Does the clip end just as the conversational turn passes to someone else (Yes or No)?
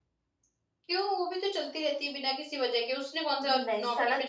Yes